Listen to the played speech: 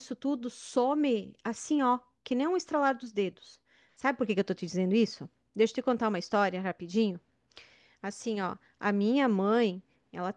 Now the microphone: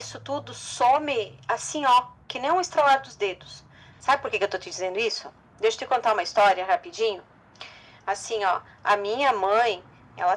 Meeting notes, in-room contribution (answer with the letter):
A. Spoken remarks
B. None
B